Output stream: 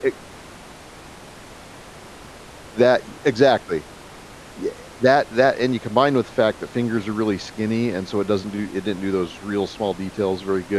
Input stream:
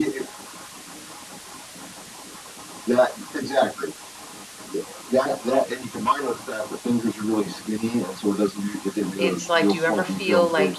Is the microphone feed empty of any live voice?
No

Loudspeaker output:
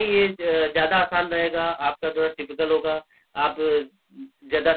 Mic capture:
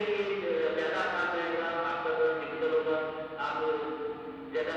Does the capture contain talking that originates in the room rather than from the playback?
No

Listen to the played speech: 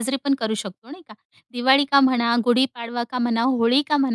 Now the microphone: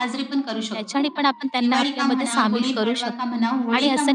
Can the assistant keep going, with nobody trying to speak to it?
No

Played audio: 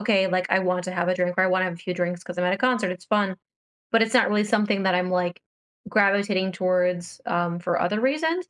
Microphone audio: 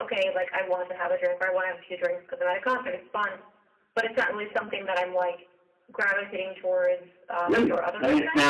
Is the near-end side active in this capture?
Yes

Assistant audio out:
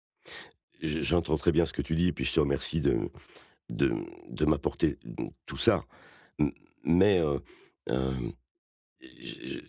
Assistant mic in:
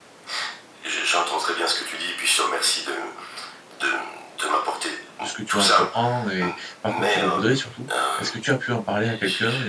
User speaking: Yes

